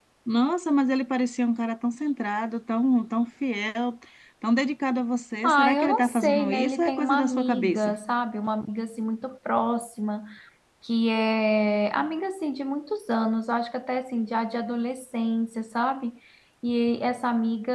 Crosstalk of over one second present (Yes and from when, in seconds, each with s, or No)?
Yes, from 5.4 s